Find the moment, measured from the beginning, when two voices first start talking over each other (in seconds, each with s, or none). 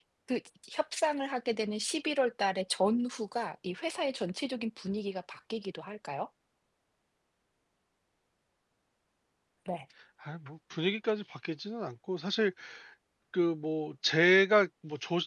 none